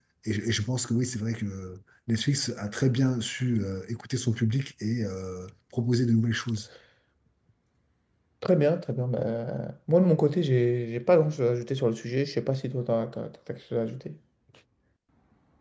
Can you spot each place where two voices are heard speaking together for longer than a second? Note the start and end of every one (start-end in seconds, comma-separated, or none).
none